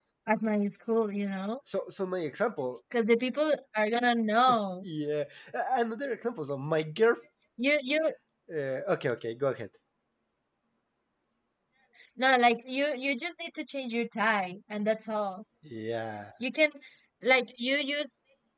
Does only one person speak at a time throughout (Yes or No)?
Yes